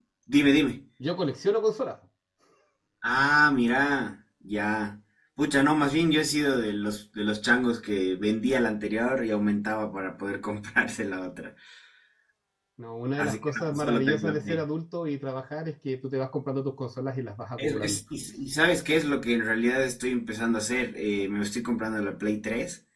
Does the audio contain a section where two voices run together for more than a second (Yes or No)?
Yes